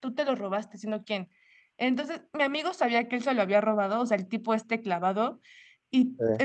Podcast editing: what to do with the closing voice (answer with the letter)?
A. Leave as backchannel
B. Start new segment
A